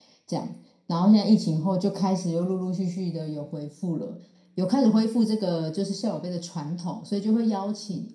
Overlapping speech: No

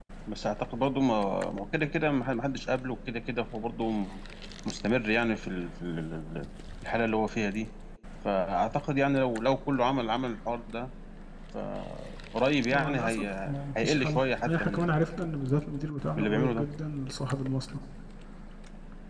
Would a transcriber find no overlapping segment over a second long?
No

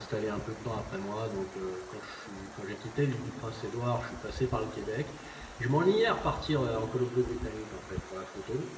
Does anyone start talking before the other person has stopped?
No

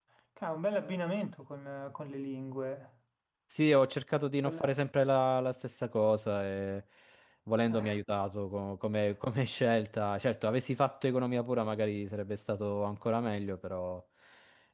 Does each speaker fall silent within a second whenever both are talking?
Yes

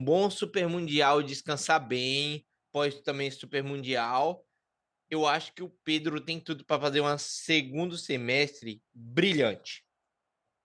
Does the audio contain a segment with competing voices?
No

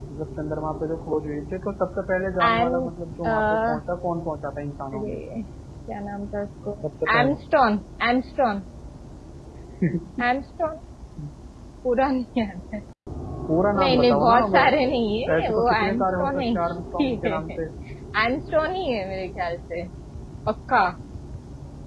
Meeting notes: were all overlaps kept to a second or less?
No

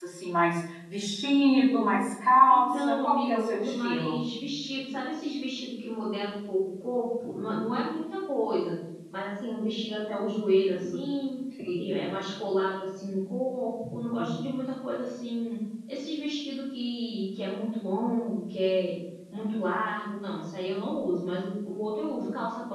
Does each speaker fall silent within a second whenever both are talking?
No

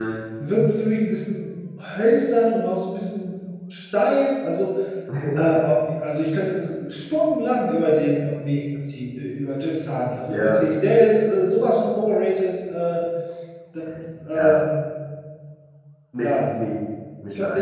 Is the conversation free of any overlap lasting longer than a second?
Yes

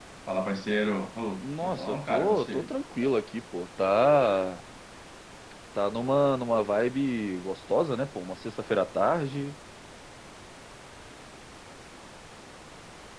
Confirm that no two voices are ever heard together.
No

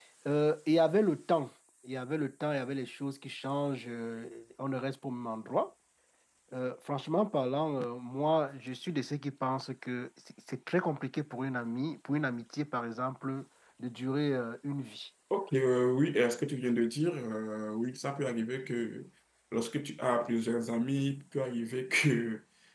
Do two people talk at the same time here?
No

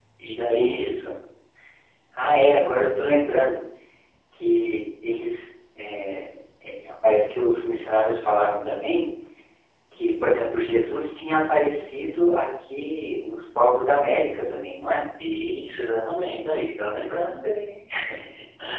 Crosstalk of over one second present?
No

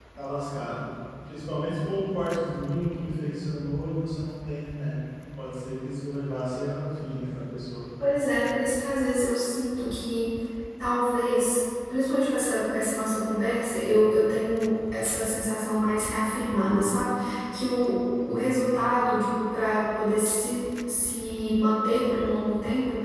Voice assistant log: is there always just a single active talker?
Yes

